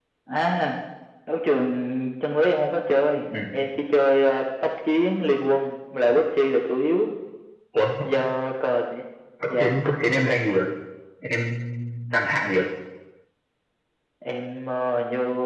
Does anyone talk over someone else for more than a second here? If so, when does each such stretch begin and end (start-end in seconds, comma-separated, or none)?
none